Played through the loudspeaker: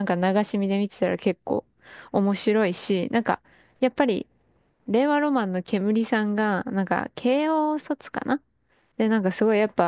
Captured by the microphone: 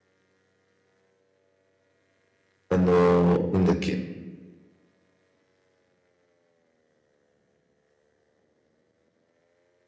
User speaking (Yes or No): Yes